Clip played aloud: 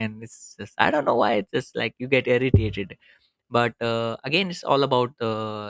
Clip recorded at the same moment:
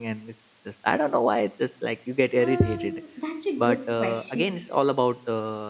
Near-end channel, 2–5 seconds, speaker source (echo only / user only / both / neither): both